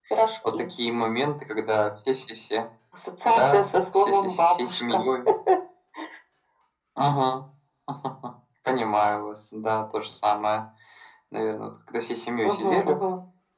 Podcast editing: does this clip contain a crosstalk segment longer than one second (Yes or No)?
Yes